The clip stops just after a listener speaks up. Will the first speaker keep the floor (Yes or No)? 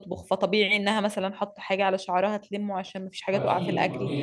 Yes